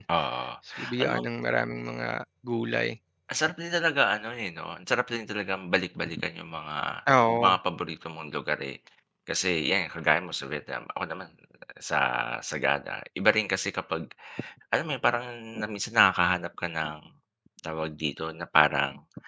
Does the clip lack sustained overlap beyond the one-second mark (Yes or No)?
Yes